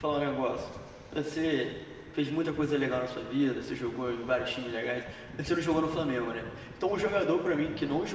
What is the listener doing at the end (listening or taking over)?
listening